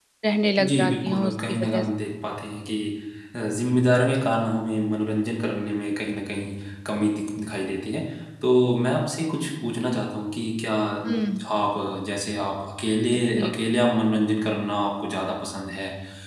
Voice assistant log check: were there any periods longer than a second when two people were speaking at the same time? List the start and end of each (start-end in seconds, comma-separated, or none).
0.6-1.8